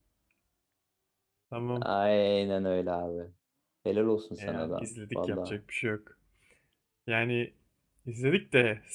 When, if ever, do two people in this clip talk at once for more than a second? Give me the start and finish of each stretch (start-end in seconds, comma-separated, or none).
4.4-5.6